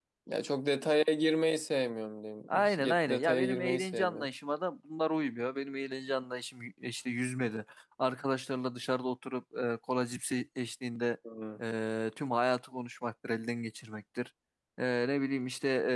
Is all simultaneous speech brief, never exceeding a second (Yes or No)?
No